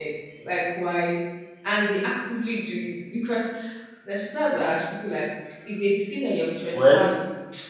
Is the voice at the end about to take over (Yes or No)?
No